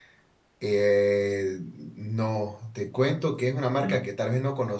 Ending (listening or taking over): listening